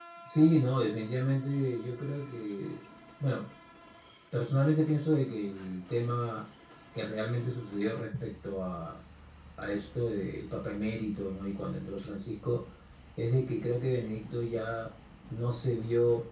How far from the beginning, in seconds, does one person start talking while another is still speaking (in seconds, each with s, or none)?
none